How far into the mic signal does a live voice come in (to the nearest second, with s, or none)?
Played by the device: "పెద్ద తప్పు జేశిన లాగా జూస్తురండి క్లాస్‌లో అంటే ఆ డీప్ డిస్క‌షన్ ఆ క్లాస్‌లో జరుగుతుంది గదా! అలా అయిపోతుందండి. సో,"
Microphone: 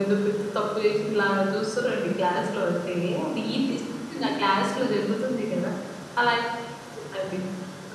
none